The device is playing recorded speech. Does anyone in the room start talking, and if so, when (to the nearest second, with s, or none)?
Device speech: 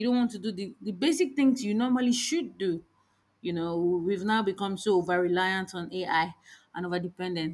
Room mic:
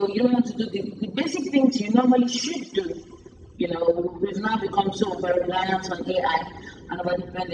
none